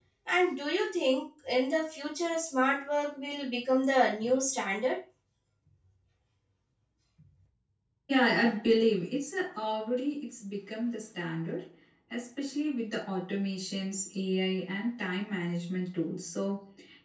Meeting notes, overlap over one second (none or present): none